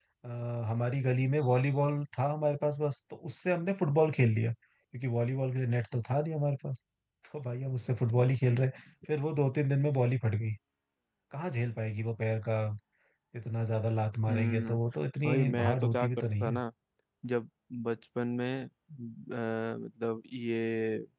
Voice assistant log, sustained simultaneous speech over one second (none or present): present